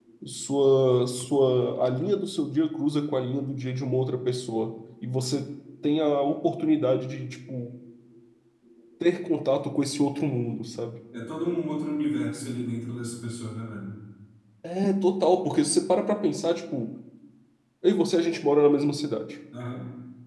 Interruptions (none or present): none